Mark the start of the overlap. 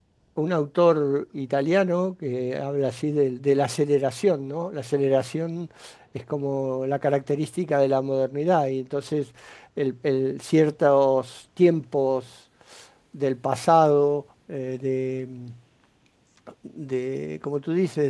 none

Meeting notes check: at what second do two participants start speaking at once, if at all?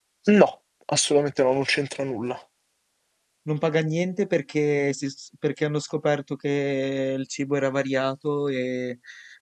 none

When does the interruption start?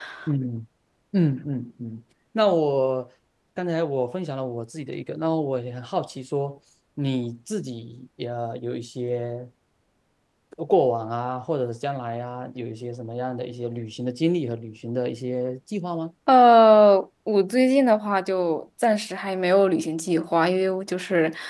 none

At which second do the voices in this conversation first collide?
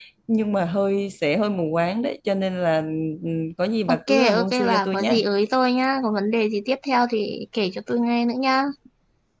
3.9 s

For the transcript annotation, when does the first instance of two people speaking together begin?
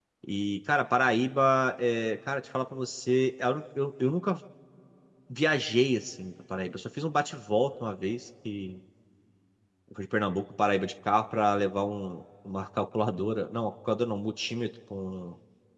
none

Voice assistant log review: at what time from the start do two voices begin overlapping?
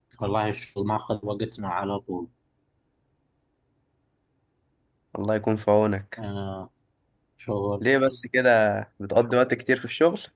none

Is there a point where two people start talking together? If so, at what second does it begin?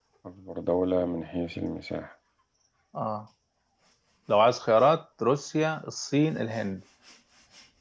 none

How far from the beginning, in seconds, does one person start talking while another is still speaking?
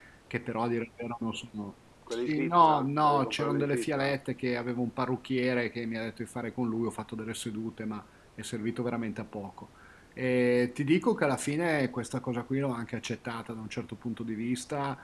2.1 s

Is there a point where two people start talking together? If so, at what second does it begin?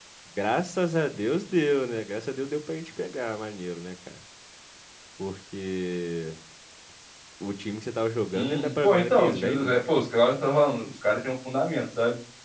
8.3 s

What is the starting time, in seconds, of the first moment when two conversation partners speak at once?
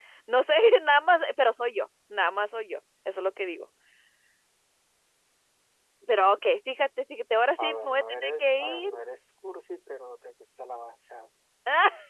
7.6 s

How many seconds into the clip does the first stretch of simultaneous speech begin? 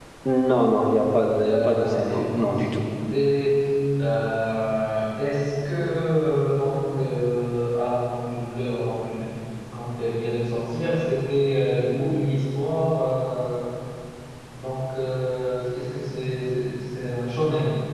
1.4 s

